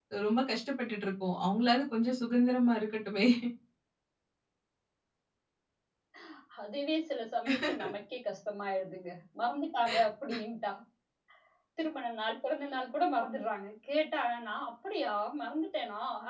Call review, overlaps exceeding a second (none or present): none